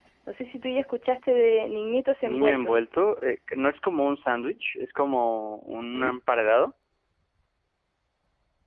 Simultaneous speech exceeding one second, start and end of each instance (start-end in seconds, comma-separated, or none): none